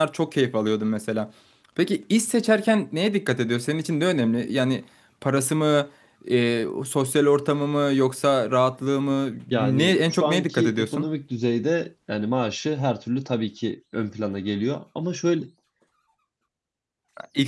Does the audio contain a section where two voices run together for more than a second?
Yes, from 9.5 s

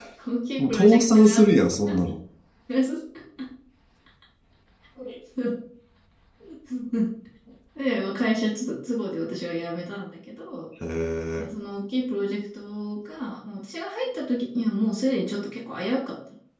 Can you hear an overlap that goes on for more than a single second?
Yes, from 0.6 s

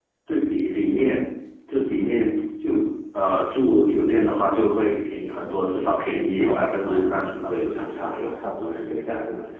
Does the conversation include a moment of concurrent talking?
Yes, from 6.4 s

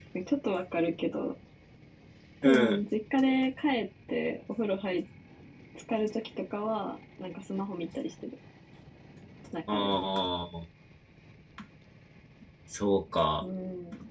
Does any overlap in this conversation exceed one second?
No

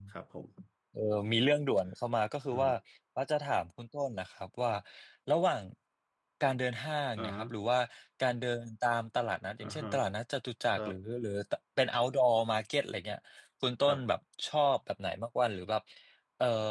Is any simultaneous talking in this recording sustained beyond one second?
No

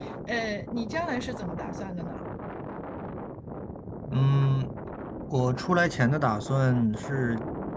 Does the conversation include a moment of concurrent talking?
No

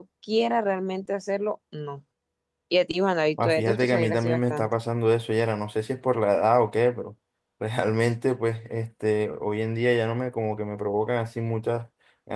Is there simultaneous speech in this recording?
Yes, from 3.4 s

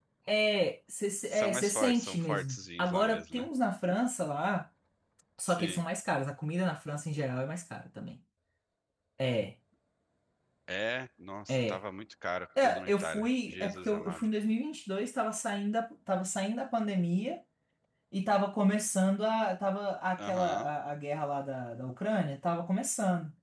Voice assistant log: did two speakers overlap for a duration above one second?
Yes, from 1.3 s

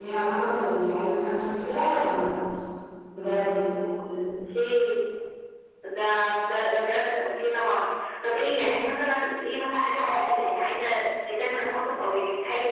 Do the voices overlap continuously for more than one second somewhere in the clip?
No

